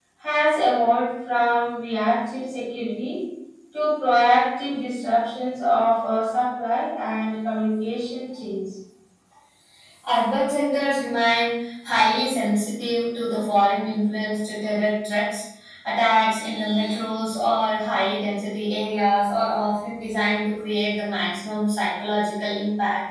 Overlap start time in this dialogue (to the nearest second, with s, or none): none